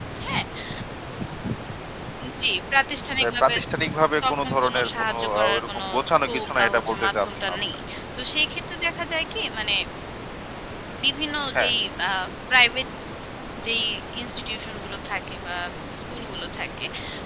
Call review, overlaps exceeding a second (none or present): present